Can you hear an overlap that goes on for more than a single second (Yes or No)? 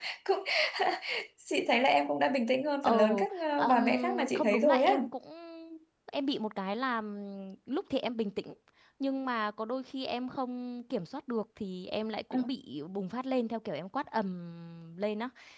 Yes